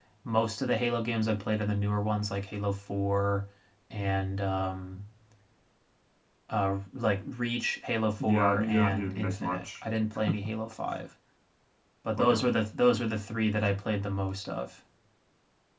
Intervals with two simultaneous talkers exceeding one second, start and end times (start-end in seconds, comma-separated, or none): 8.2-9.8